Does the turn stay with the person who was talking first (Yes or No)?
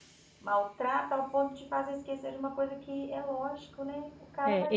No